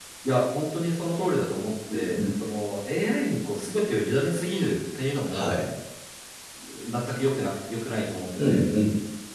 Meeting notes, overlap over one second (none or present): none